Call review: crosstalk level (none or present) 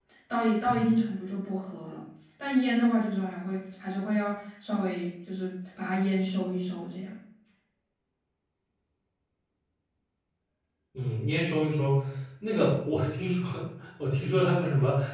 none